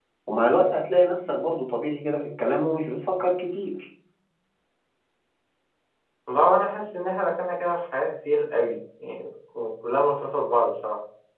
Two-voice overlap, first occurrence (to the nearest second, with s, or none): none